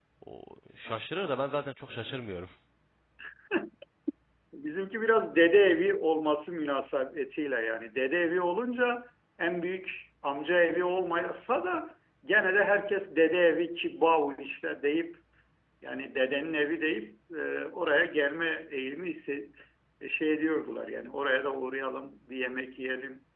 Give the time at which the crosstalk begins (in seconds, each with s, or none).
none